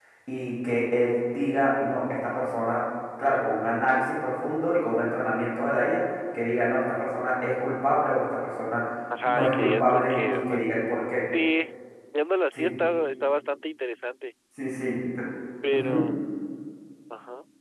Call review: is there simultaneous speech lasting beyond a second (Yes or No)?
Yes